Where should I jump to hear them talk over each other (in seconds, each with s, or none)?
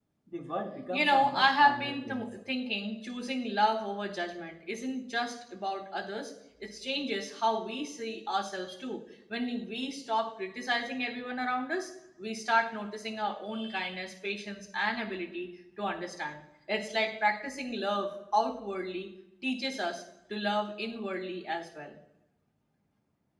0.9 s